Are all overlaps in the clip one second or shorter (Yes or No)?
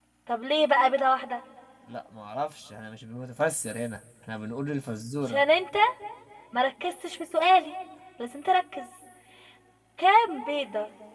Yes